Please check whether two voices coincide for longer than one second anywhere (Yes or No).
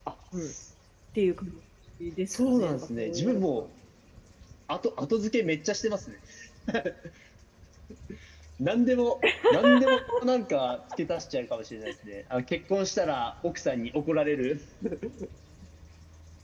Yes